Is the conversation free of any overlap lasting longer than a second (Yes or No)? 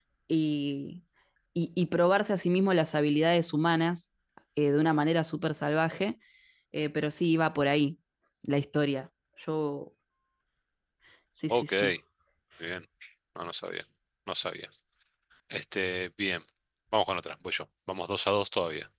Yes